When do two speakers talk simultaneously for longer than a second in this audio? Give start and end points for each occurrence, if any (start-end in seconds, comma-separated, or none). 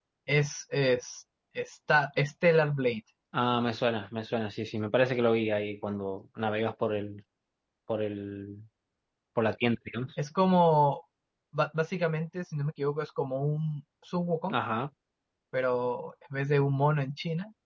none